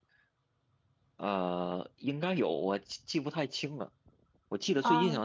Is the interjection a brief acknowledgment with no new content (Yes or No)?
Yes